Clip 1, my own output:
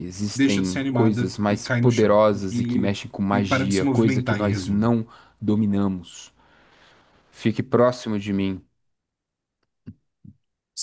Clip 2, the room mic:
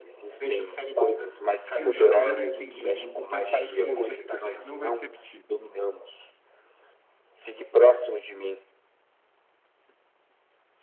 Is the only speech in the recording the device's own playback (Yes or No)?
No